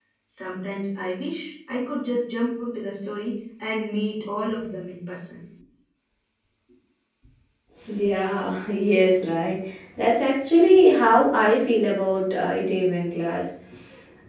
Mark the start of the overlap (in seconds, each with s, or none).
none